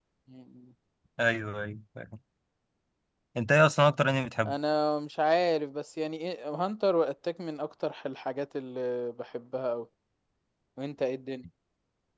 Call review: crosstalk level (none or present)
none